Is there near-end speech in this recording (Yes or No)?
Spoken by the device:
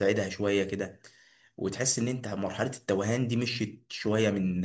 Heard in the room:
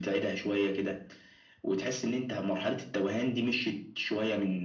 No